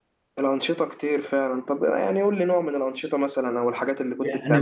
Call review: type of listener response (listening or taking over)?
taking over